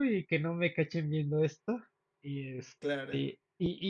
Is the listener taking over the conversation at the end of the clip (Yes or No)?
No